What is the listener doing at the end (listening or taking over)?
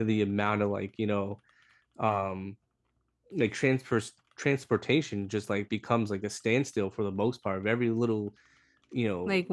listening